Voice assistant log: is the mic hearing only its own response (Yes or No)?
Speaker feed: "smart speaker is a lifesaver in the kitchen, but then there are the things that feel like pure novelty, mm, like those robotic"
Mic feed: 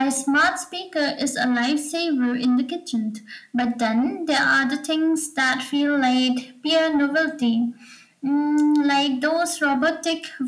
Yes